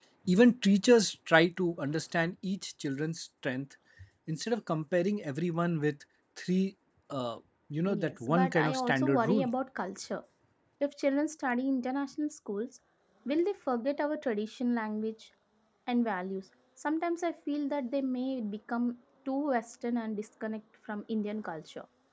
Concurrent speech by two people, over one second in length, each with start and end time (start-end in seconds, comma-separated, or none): 7.9-9.5